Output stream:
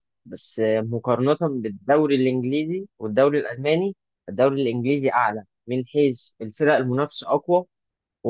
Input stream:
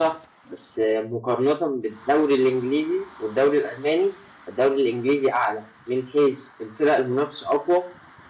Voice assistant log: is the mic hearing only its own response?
Yes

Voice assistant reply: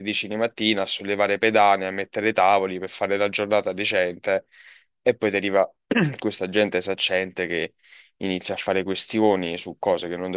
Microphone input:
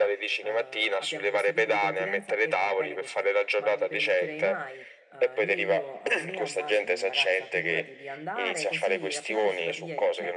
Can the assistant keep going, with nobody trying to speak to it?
No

